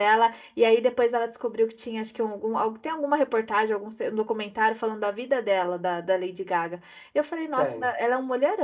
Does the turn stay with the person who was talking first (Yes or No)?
Yes